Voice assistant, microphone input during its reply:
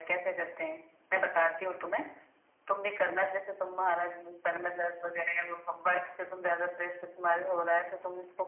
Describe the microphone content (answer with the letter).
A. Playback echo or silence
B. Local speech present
A